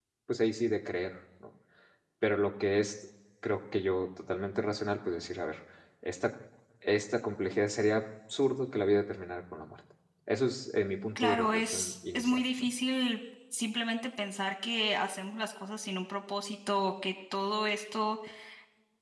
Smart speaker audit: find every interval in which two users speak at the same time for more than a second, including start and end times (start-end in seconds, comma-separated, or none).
11.2-12.7